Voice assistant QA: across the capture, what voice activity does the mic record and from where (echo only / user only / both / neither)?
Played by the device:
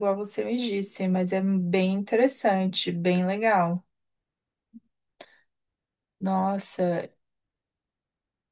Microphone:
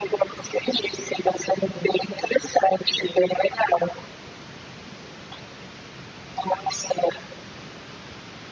echo only